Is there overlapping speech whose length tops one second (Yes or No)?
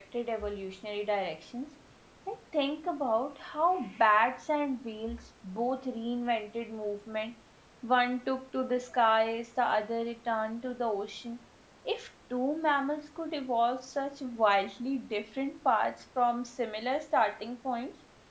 No